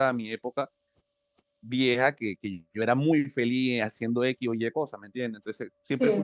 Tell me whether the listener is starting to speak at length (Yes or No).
No